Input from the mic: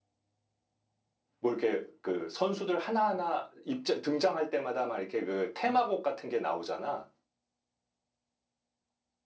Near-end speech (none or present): present